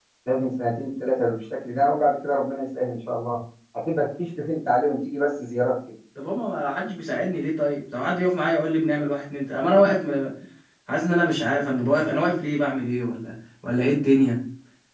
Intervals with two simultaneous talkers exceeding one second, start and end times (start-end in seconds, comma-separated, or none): none